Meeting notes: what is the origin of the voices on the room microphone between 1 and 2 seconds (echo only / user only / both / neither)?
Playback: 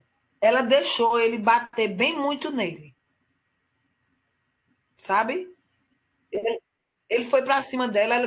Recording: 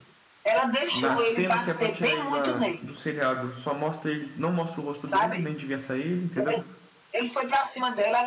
both